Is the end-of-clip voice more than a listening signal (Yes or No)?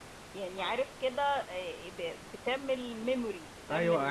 Yes